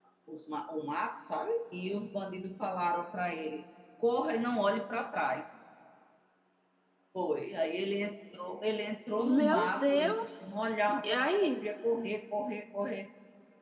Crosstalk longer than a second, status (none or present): present